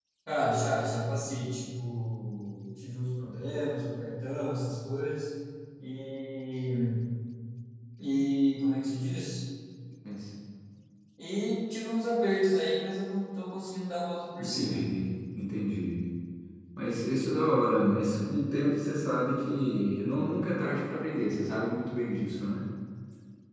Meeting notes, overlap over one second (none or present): none